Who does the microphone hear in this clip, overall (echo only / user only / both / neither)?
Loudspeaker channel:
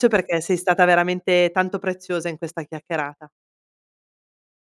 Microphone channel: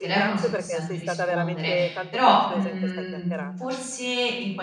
both